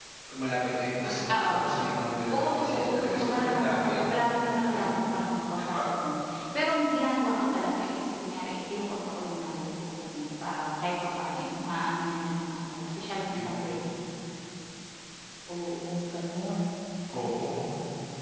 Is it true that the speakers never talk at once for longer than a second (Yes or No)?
No